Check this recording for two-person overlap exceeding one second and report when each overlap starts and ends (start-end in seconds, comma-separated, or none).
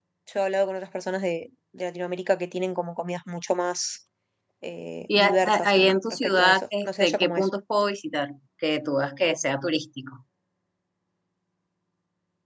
5.1-7.5